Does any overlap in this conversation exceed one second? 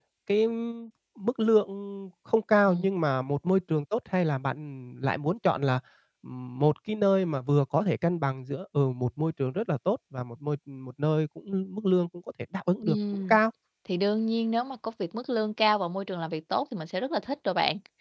No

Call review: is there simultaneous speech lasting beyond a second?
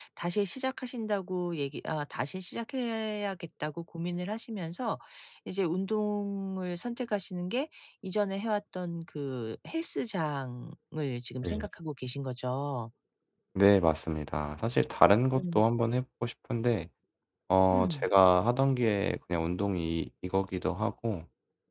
No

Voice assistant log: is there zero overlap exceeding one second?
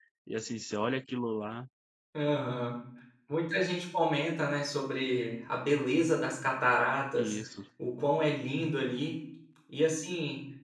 Yes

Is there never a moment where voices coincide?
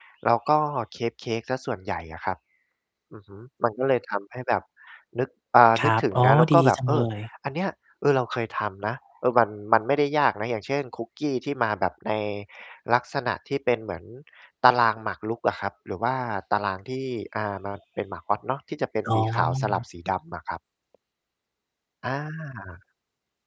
No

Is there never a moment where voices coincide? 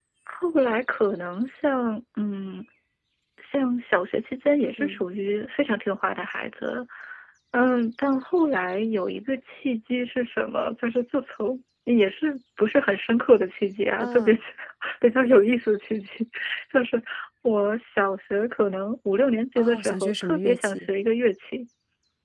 No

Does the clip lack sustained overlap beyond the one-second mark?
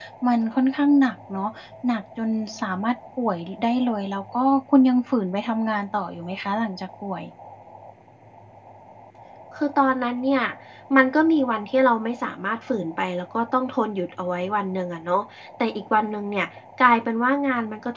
Yes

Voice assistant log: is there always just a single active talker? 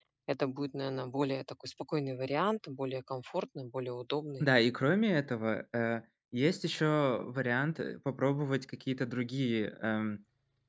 Yes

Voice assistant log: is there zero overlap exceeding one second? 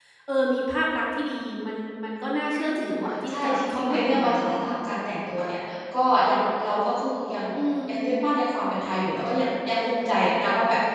No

